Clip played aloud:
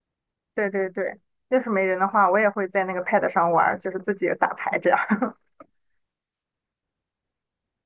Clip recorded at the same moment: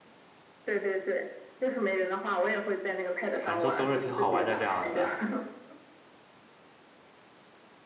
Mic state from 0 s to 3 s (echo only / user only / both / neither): echo only